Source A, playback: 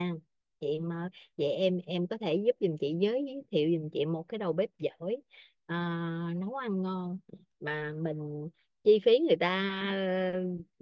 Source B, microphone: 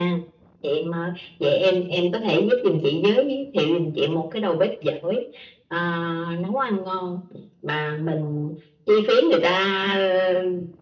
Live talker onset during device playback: none

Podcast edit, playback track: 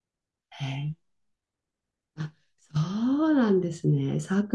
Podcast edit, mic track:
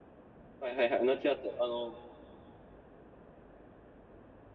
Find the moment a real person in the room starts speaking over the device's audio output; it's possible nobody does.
1 s

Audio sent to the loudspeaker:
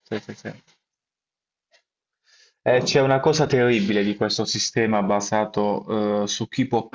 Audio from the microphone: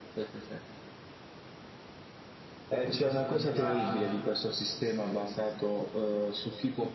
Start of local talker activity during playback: 3 s

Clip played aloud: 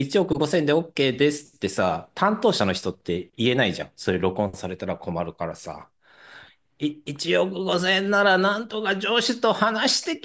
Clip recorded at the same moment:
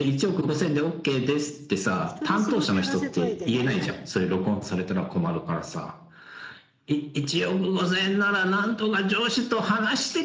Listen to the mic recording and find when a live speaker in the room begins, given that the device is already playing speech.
2 s

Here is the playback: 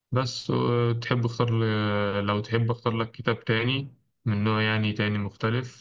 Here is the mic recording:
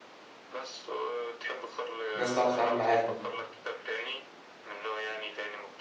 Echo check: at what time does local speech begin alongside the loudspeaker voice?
2 s

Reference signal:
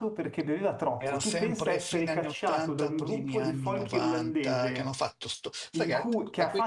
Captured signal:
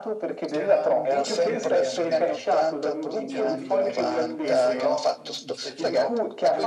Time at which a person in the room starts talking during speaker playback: 0 s

